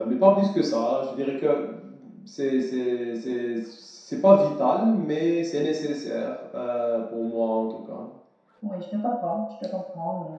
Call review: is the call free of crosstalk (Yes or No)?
Yes